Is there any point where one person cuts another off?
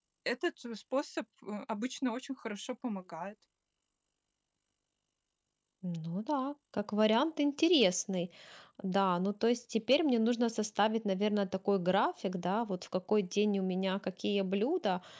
No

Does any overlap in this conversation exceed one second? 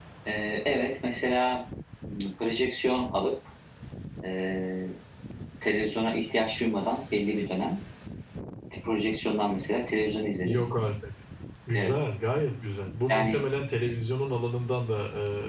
No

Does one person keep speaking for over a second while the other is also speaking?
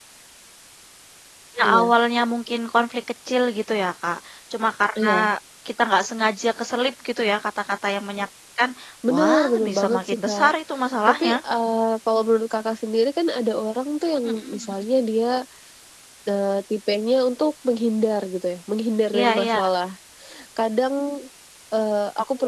Yes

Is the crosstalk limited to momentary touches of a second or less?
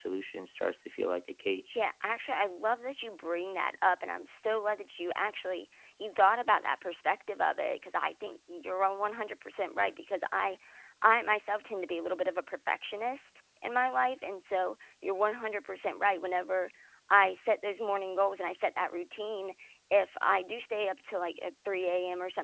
Yes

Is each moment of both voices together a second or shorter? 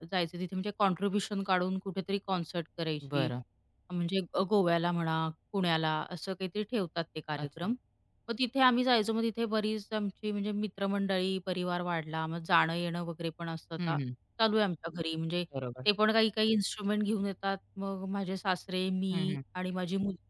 Yes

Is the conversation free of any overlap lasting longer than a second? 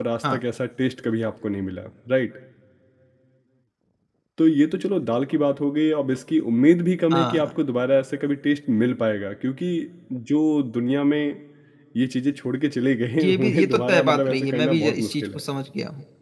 No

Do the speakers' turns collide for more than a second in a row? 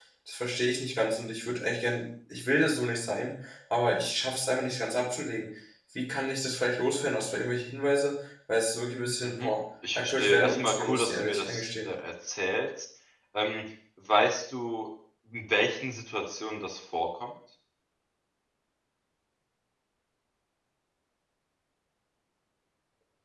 Yes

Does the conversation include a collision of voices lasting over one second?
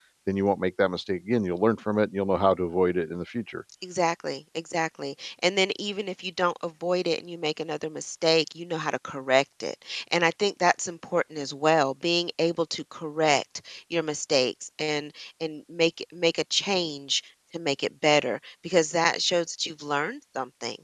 No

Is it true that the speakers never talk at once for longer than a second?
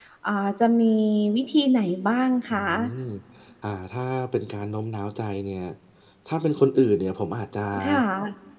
Yes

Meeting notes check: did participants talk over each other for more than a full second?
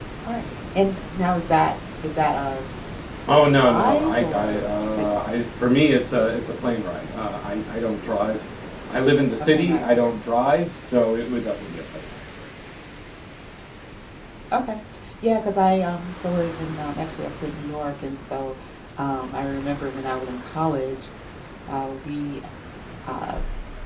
Yes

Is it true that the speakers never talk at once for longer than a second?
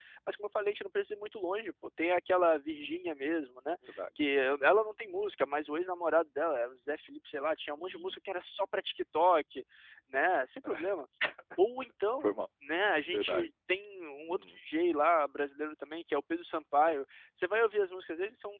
Yes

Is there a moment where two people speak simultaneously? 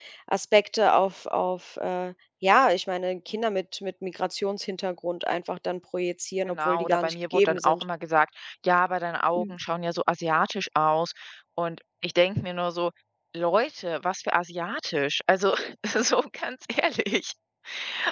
Yes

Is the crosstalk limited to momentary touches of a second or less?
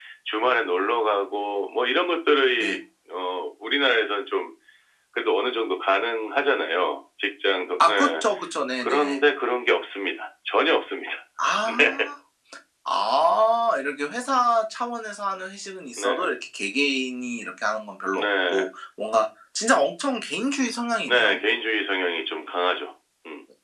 Yes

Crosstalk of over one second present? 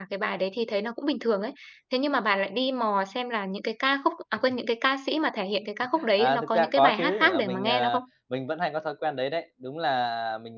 Yes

